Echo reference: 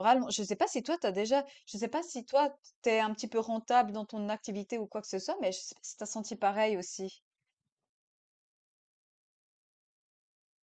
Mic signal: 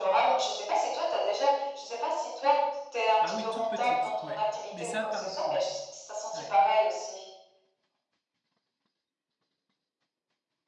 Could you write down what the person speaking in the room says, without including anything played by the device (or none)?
Ah oui, toute petite, ouais. Mais ça, pareil, ouais, ouais.